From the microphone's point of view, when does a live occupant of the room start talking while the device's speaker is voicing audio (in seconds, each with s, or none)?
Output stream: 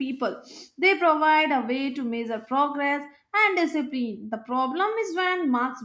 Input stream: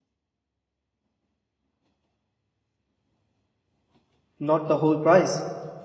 4.4 s